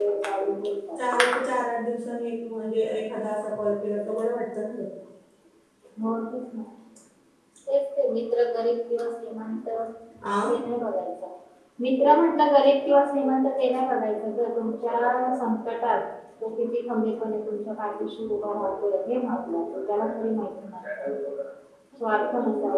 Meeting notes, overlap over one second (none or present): none